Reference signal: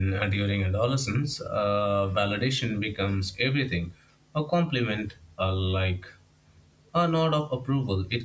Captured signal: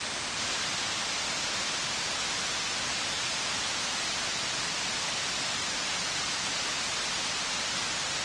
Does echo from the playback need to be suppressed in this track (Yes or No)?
No